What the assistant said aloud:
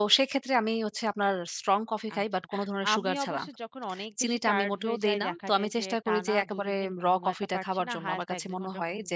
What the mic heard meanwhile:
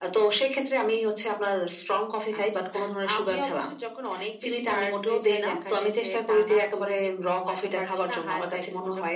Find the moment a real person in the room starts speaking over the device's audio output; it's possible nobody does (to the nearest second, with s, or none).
none